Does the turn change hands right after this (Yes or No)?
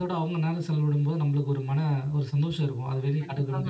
Yes